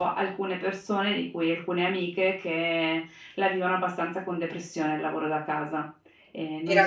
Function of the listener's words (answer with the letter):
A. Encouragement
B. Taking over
B